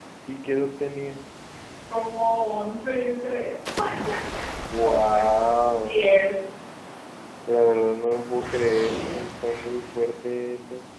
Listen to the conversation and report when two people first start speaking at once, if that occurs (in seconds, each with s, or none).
4.8 s